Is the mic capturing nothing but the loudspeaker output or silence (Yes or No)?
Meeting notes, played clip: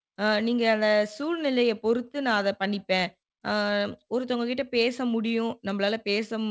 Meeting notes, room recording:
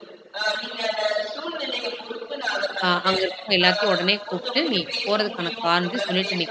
No